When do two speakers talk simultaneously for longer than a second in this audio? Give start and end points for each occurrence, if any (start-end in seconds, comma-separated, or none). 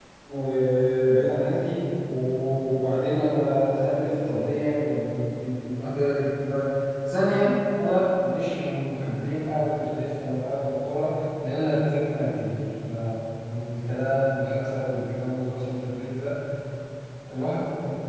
none